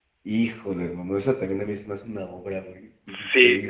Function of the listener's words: taking over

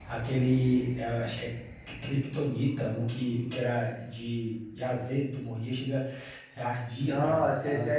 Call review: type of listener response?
taking over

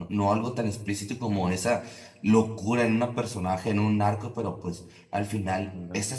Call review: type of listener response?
listening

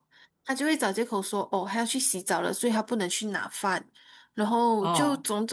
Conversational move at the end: listening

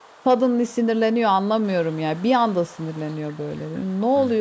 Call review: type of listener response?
taking over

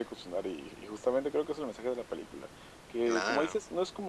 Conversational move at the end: listening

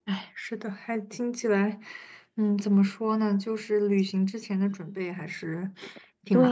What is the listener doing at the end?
taking over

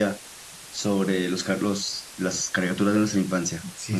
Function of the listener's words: taking over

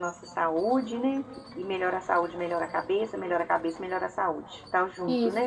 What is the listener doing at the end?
taking over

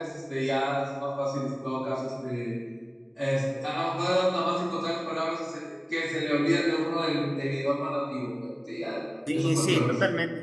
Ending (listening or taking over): taking over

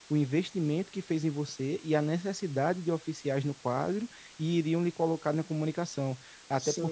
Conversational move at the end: listening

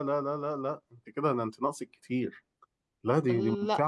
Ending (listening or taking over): listening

